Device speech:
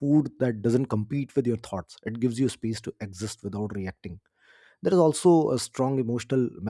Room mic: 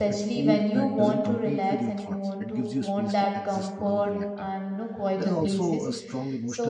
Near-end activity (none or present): present